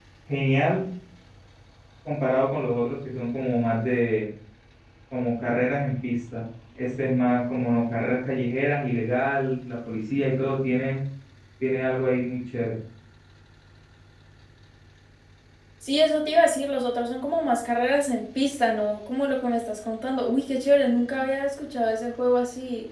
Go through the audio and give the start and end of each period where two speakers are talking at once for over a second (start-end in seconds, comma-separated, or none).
none